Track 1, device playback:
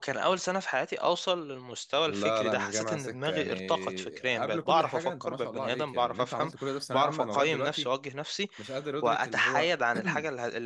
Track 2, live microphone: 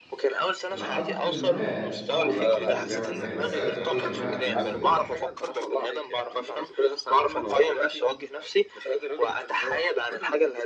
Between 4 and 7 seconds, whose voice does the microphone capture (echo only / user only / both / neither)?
both